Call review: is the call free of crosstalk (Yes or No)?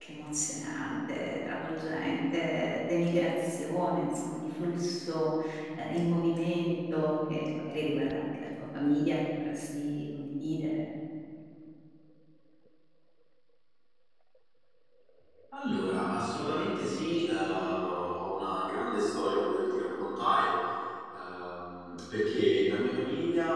Yes